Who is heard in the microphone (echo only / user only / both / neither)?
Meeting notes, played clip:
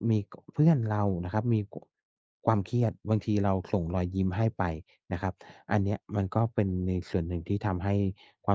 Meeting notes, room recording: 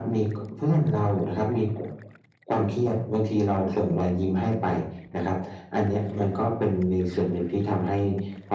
echo only